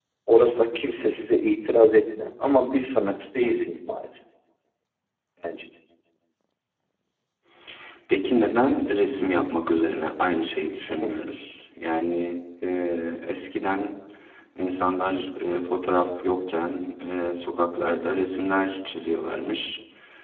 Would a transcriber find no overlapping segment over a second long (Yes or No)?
Yes